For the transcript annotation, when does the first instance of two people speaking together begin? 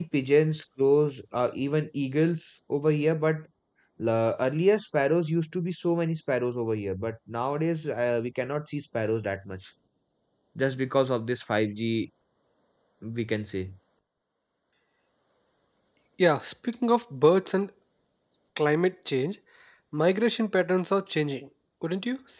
none

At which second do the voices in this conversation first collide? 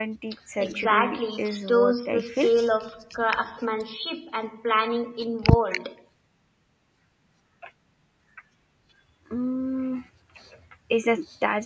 0.6 s

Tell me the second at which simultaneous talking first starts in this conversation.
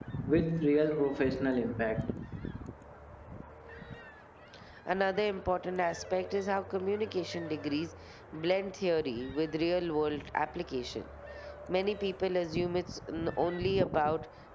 none

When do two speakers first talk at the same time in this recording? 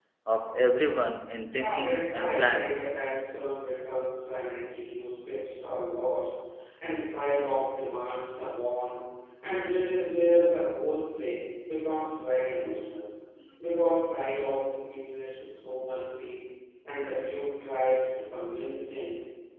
1.5 s

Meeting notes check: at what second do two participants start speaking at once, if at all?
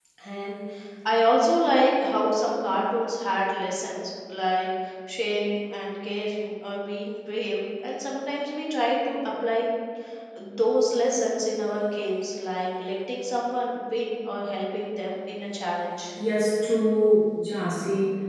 none

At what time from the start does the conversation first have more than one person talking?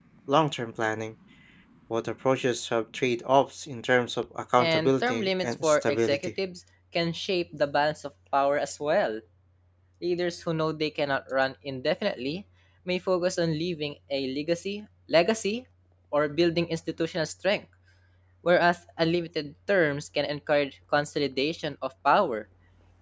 4.6 s

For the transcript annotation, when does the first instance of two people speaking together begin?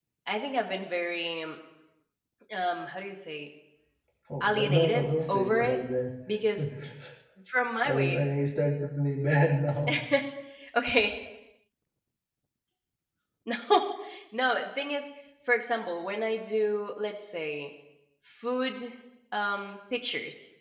4.4 s

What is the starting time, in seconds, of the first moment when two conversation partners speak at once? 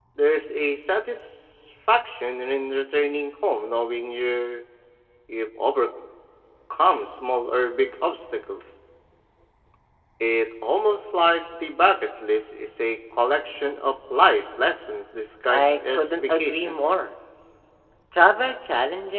15.5 s

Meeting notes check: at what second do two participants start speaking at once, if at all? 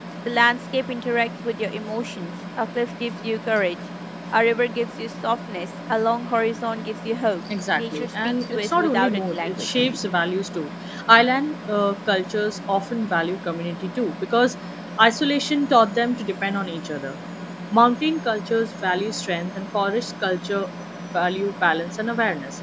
7.8 s

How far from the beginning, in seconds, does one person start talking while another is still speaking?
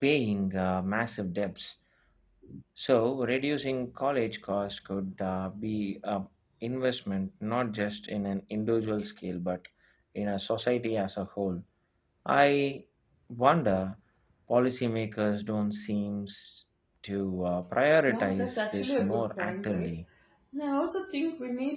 18.1 s

